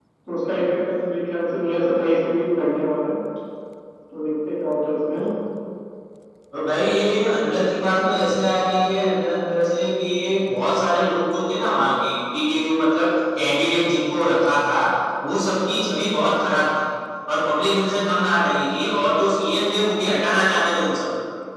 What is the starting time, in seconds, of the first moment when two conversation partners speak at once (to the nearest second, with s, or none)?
none